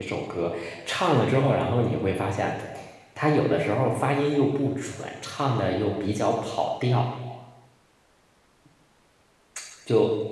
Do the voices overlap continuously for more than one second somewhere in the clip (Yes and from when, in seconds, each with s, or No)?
No